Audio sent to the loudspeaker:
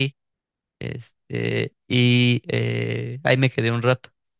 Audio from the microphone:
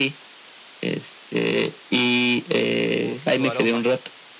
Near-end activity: present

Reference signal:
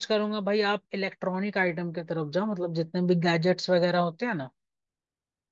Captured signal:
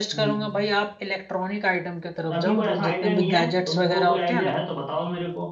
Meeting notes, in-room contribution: present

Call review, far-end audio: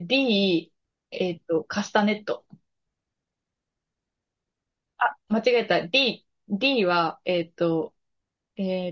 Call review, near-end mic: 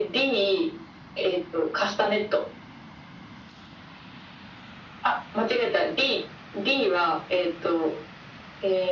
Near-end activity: none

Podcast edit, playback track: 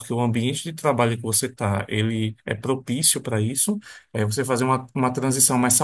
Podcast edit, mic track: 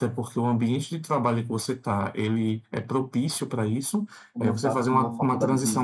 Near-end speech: present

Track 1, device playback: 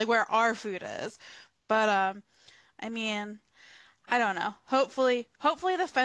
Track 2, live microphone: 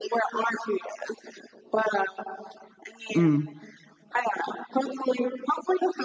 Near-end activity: present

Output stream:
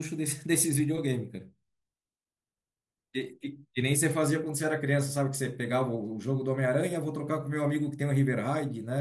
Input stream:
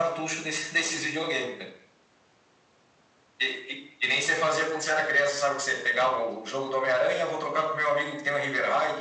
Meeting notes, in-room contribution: none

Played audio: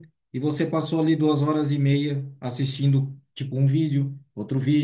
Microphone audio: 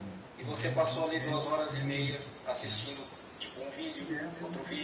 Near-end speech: present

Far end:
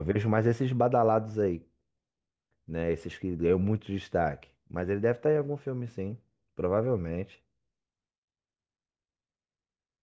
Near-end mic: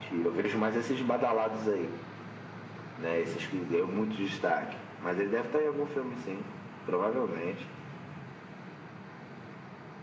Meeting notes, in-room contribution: none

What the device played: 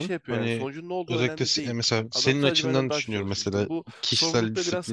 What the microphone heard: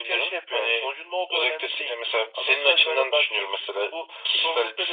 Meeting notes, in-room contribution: none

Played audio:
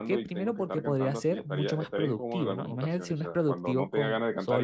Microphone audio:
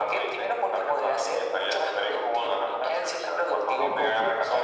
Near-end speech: present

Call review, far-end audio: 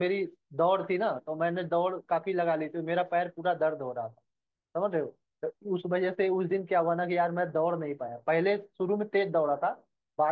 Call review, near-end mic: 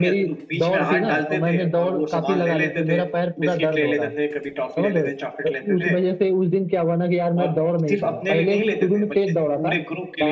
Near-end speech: present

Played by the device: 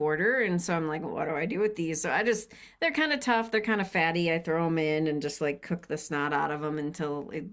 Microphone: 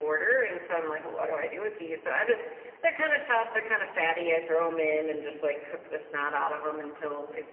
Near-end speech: none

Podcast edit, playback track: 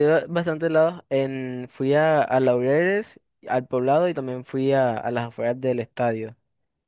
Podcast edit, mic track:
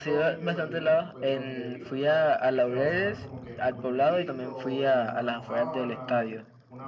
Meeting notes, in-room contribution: present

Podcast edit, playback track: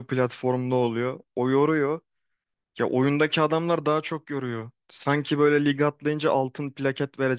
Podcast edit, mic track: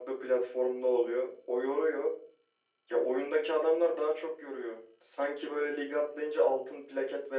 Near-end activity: none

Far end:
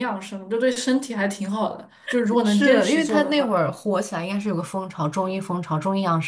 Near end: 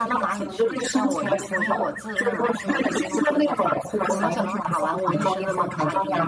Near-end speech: present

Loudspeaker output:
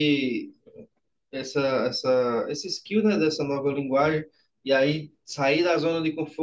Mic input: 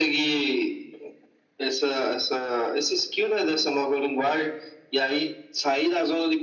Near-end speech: none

